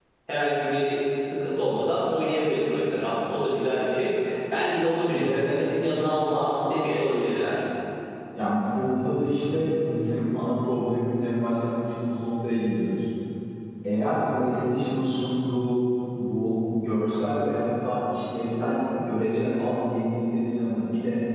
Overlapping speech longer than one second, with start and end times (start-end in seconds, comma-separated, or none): none